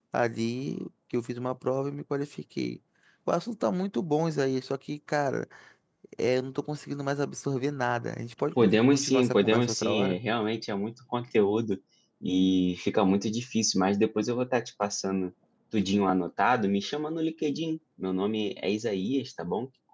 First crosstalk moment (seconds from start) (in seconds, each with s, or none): 8.6 s